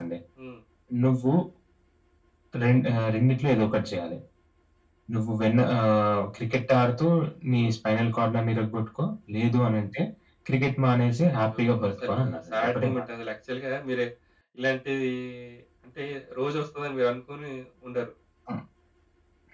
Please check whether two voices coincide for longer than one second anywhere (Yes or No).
Yes